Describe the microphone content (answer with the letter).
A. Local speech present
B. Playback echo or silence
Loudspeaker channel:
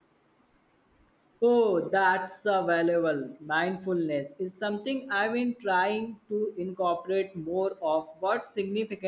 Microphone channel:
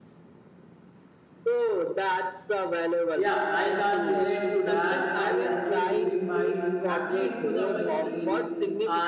A